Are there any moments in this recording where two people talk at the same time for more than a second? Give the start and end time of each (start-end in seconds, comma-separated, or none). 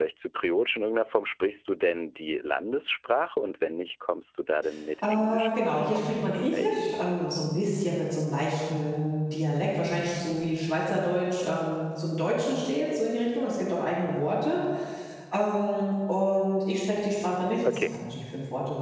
5.1-6.7